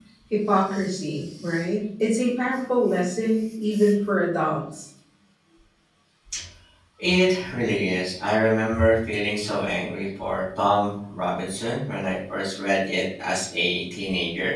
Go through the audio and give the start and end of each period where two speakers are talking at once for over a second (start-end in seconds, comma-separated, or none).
none